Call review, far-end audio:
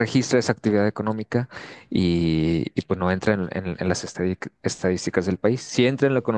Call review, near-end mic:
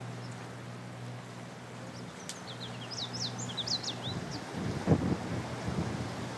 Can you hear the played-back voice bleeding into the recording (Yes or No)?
No